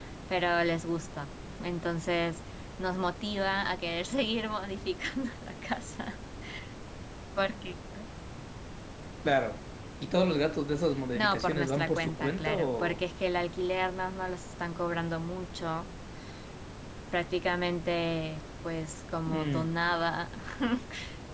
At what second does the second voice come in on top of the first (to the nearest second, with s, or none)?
11 s